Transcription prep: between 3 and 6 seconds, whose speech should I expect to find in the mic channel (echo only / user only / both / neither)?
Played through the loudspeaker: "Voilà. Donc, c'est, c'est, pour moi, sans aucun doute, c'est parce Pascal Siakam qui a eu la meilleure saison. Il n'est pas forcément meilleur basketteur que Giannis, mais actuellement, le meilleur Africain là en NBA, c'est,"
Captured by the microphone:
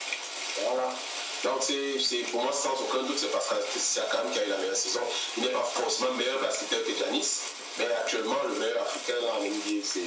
echo only